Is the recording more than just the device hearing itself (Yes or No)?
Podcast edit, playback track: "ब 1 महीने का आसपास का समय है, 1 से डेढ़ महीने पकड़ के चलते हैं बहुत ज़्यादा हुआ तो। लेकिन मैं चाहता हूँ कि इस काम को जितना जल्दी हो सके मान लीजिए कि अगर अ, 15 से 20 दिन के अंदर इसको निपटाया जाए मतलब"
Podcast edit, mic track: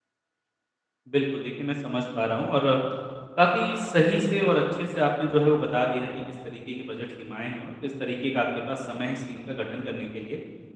Yes